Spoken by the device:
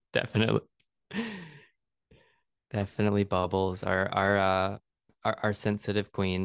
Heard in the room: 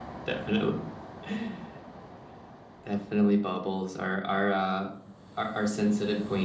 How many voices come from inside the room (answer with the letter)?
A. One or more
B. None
B